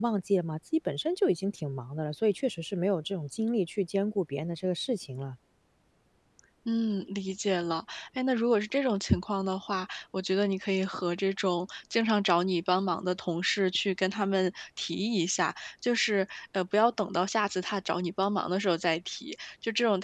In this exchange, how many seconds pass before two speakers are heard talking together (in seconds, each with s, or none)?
none